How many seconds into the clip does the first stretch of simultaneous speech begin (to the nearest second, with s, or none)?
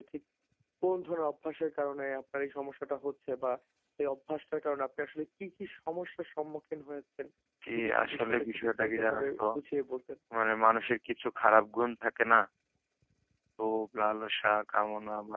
8 s